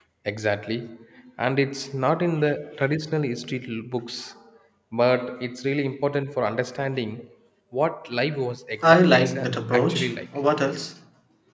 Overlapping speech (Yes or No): Yes